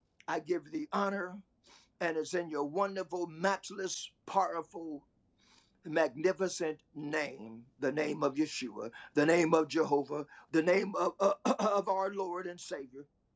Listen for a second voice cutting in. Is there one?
No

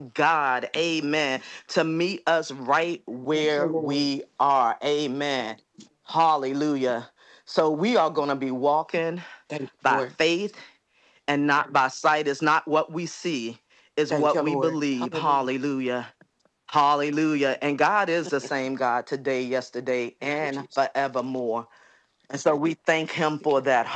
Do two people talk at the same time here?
Yes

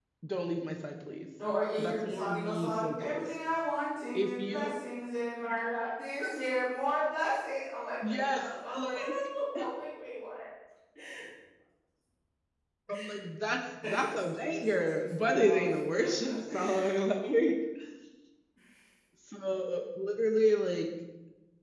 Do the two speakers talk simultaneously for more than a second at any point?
Yes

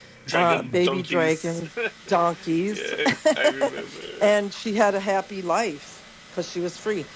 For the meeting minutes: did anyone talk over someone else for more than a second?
Yes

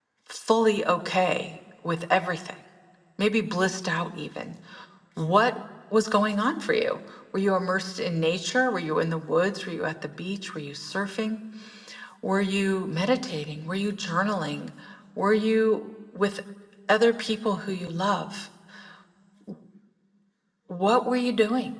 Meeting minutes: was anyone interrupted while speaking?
No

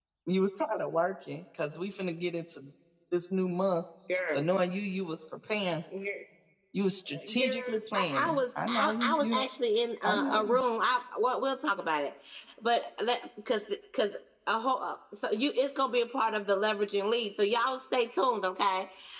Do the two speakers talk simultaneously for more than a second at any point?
Yes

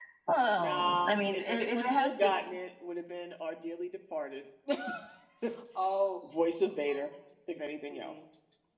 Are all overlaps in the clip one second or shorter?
No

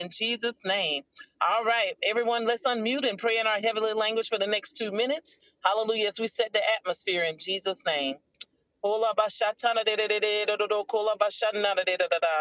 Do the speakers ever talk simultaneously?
No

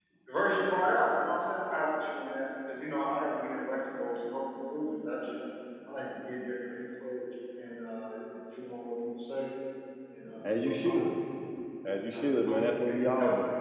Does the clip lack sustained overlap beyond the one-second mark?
No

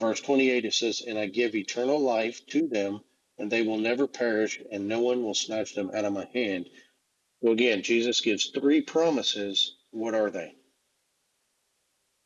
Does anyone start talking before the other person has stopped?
No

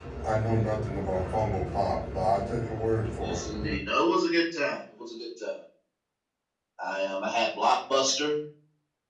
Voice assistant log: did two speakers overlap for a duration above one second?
No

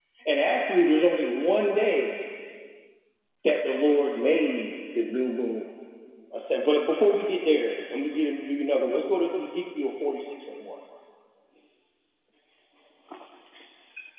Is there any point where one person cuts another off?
No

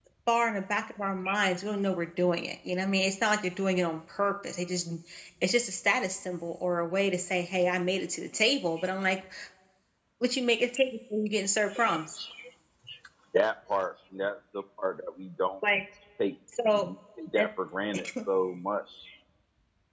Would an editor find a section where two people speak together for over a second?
No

